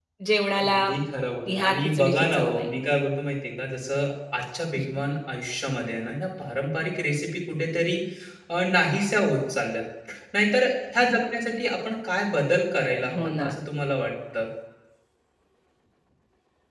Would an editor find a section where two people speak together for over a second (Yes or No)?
Yes